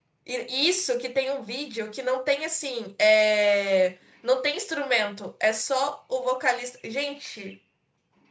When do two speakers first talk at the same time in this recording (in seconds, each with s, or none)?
none